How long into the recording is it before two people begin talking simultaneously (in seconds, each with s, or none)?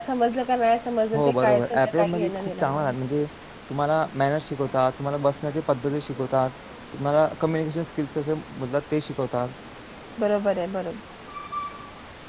1.1 s